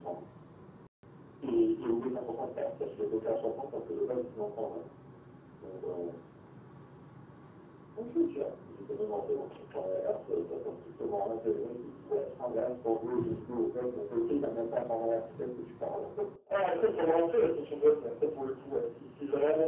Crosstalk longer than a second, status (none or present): none